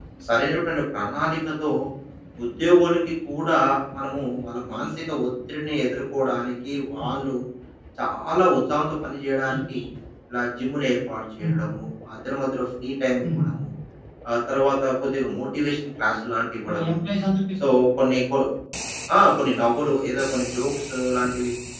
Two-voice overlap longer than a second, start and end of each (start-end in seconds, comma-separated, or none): none